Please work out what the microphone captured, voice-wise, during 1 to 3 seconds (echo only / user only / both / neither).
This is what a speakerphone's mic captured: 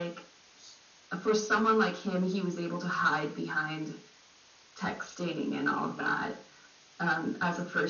echo only